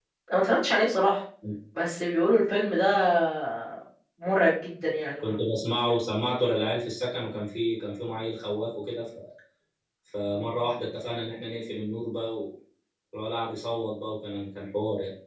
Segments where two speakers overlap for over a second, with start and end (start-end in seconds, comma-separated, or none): none